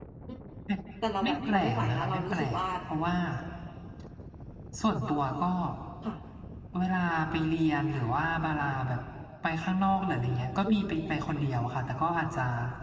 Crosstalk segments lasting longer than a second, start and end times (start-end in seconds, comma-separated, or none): 1.2-2.6